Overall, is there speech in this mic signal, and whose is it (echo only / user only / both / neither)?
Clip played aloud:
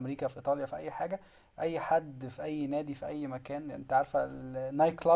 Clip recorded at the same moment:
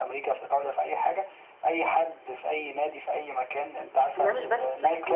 both